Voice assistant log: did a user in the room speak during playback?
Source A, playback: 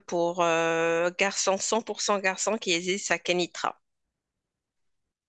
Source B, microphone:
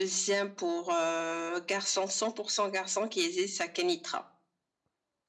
No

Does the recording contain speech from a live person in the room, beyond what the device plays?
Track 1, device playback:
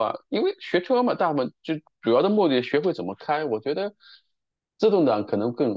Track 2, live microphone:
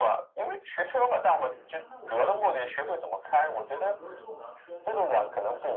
Yes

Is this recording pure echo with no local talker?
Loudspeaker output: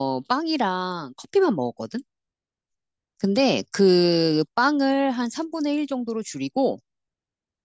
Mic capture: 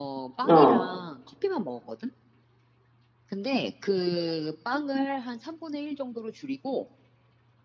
No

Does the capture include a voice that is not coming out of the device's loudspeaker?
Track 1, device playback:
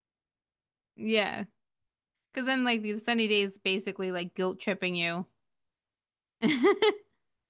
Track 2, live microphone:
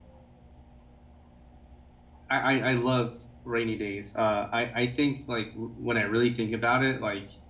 Yes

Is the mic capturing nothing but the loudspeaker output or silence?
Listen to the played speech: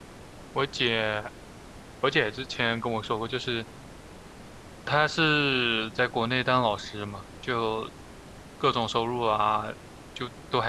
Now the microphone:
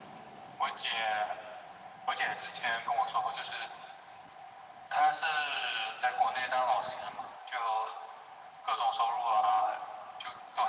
Yes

